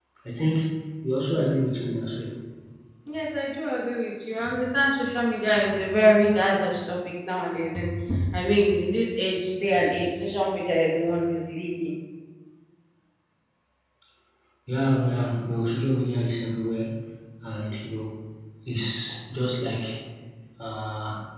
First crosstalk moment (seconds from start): none

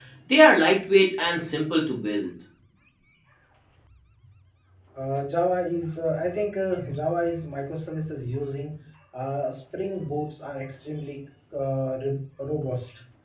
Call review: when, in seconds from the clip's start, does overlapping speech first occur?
none

